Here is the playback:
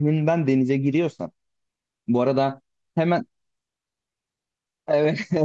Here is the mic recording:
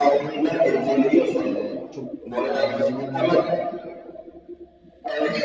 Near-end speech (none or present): present